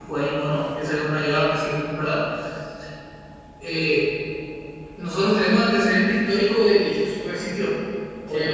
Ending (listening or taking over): listening